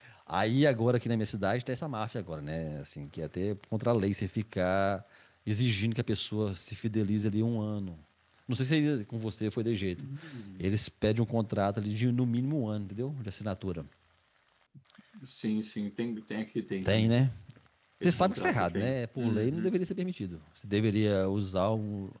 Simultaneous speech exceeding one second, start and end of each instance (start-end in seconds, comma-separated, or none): 18.0-19.7